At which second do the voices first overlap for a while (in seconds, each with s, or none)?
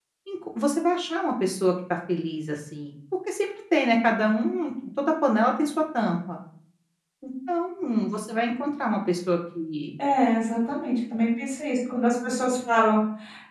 none